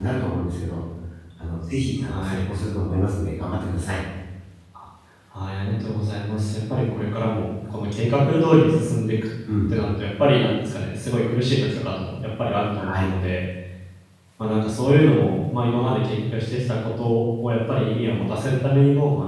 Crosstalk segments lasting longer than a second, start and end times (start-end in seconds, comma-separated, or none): none